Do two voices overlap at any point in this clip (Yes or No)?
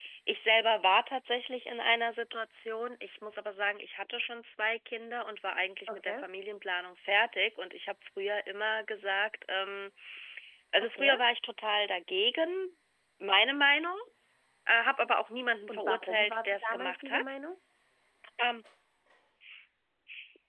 Yes